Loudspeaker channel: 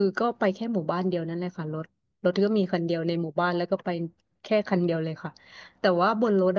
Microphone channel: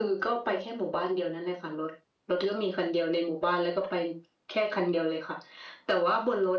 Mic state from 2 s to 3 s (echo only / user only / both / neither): echo only